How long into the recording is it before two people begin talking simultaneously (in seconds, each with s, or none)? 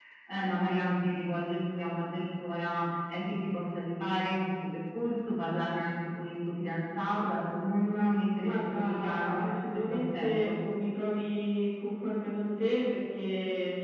8.4 s